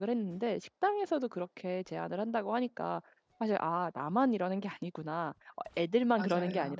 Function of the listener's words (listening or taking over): listening